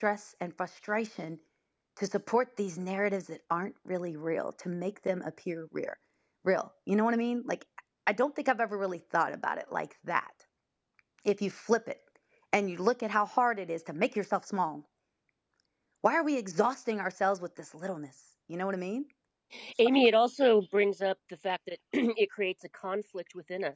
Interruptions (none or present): none